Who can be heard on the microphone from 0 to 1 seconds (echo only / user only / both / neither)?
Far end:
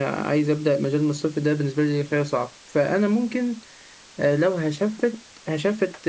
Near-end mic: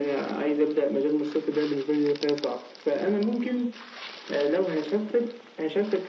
echo only